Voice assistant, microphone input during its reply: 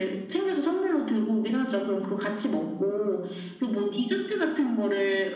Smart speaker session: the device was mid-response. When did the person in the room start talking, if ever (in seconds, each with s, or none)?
none